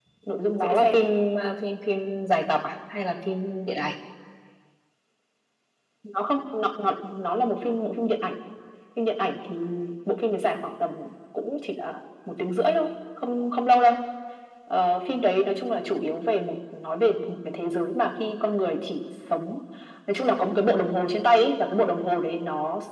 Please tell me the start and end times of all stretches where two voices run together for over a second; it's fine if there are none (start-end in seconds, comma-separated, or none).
none